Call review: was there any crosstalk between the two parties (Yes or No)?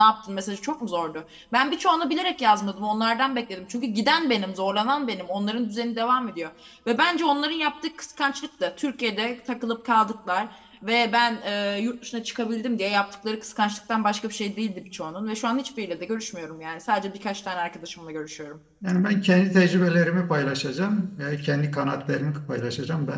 No